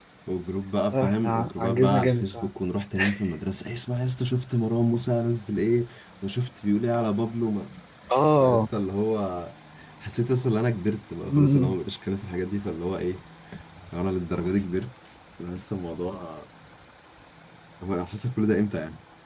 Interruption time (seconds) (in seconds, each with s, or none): 0.9 s